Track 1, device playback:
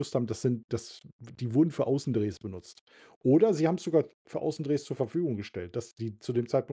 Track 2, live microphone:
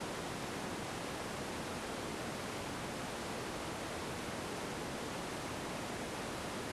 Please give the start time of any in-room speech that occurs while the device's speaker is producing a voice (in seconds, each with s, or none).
none